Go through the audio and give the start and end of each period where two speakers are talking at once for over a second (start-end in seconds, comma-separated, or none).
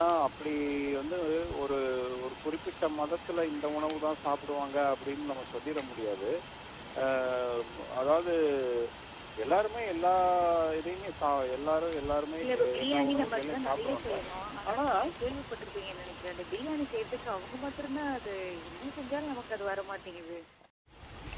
12.4-14.1